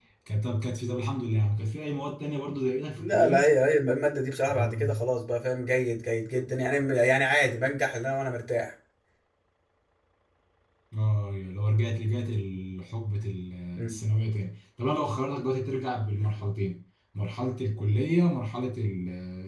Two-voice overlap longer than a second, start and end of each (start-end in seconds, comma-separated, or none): none